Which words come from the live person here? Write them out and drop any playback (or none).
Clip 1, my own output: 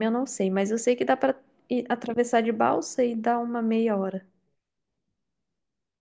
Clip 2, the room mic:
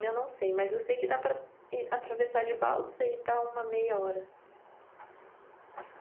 none